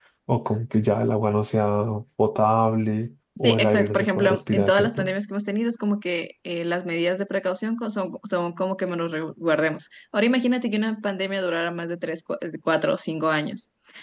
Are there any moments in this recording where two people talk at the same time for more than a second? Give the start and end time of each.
3.4-5.1

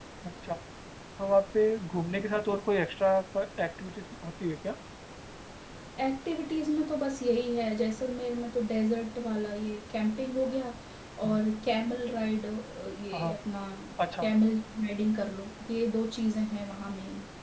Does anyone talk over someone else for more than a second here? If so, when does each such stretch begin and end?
none

